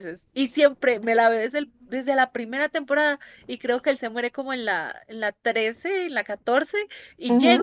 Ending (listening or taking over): listening